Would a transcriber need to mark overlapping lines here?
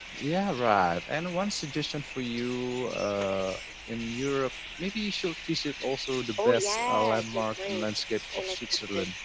Yes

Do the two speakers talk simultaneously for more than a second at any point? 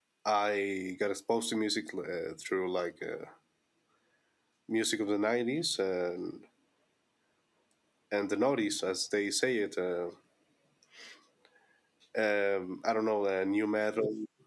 No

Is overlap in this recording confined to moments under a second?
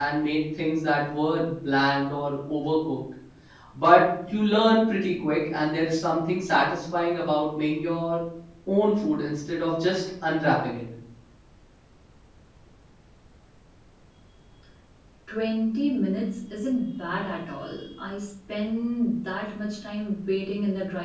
Yes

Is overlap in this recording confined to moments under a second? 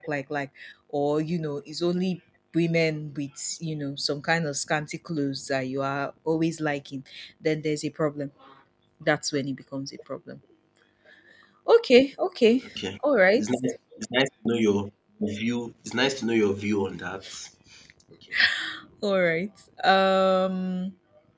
Yes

